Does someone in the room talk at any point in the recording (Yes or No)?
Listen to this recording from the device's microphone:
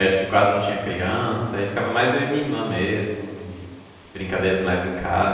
Yes